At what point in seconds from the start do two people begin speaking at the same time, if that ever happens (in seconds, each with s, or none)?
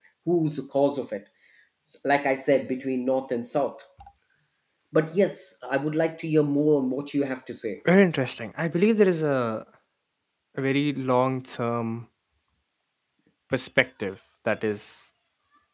none